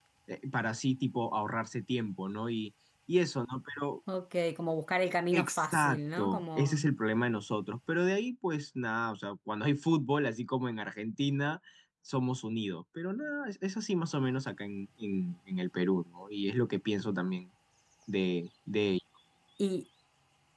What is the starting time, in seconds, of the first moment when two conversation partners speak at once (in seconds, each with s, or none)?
5.3 s